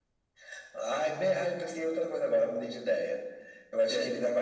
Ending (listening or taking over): listening